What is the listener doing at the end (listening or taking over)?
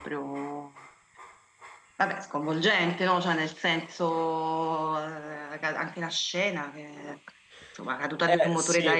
taking over